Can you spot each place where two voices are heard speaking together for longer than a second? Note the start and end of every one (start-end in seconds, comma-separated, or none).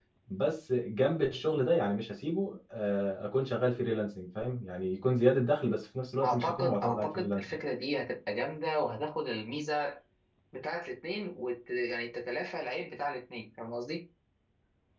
6.2-7.4